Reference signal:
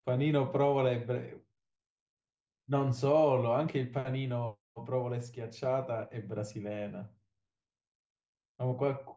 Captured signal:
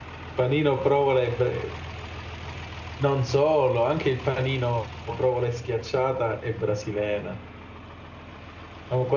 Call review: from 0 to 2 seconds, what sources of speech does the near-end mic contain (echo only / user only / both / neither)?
echo only